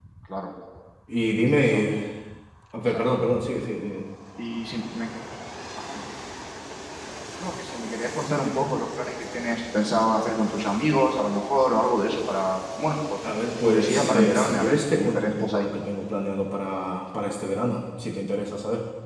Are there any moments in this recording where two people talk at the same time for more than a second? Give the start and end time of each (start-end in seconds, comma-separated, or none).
13.6-15.6